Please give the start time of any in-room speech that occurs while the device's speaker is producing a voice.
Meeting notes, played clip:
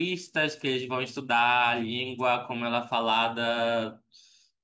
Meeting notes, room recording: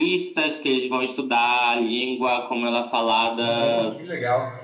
3.4 s

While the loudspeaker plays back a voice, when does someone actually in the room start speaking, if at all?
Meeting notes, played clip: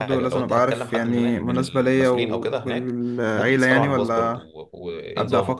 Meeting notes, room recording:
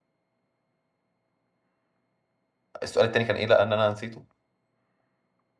2.8 s

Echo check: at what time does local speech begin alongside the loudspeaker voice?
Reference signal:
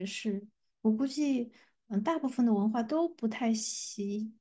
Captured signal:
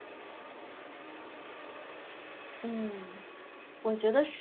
2.6 s

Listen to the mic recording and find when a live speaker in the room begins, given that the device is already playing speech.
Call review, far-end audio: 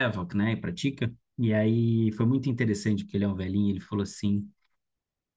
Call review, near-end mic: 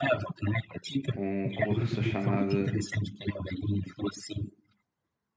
1.1 s

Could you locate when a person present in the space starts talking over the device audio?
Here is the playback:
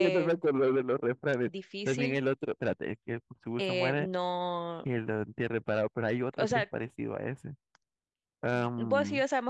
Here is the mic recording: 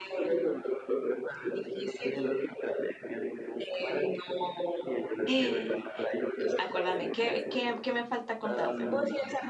5.2 s

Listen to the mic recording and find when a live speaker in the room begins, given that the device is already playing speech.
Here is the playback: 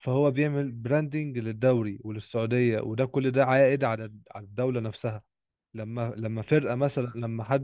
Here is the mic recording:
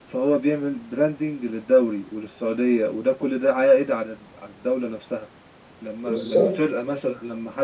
6.0 s

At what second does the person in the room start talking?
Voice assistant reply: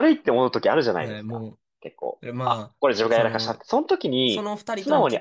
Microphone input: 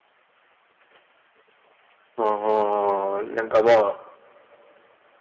2.2 s

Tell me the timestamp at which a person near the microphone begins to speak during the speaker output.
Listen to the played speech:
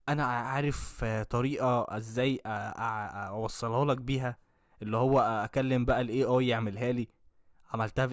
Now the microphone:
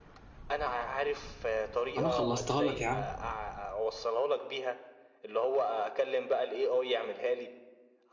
2.0 s

